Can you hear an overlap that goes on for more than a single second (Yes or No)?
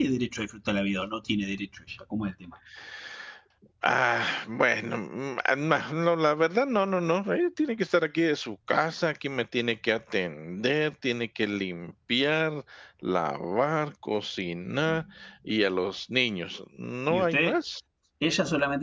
No